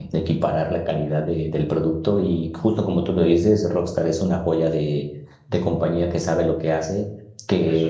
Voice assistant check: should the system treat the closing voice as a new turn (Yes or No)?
No